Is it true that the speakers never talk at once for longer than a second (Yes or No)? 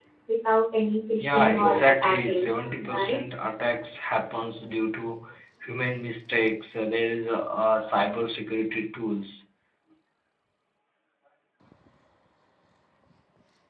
No